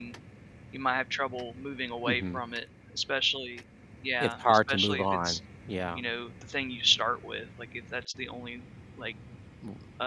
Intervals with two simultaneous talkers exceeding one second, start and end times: 4.2-5.4

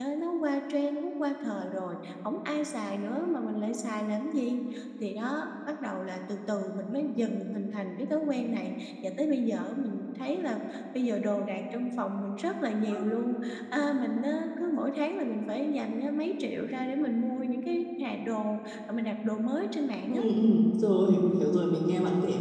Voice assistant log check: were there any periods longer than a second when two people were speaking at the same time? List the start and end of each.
none

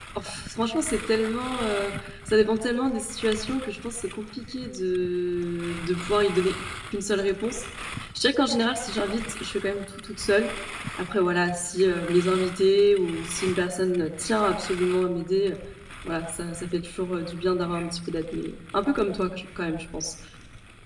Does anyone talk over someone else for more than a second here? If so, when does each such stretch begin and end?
none

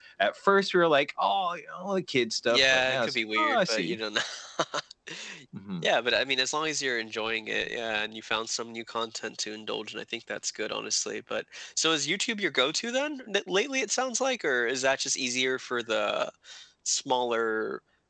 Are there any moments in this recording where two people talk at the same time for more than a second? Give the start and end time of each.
2.5-4.0

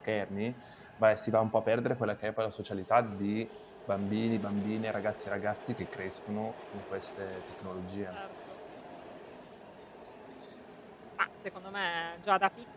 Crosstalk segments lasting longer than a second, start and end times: none

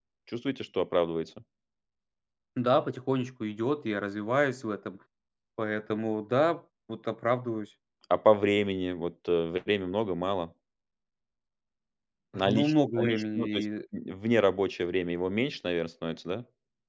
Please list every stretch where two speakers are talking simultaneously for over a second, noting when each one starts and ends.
12.4-13.6

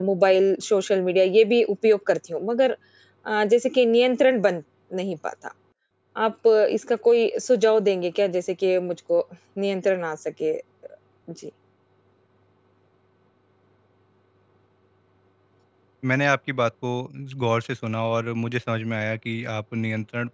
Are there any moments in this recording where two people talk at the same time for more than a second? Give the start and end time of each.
none

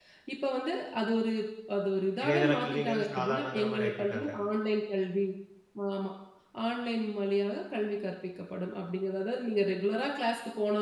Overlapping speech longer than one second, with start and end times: 2.2-4.3

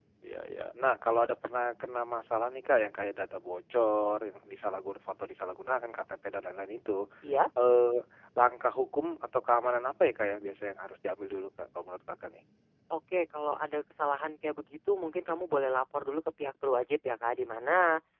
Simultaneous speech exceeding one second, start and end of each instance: none

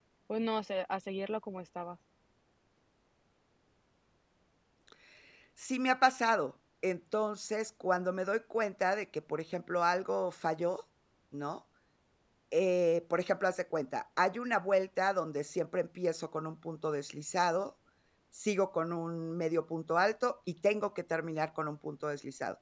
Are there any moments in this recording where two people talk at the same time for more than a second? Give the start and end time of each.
none

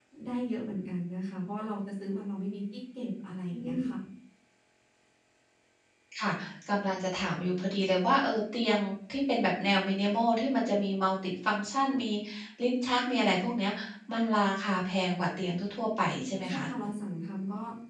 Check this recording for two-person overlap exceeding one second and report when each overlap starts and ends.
none

